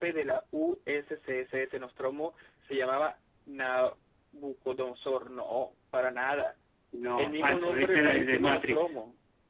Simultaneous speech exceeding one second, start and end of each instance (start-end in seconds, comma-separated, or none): 7.2-9.0